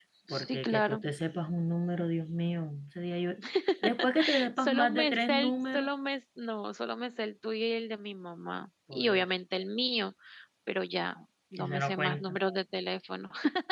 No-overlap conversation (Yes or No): No